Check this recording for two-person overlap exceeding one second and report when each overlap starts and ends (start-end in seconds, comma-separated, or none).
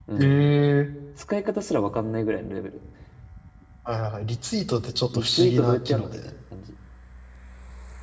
5.1-6.3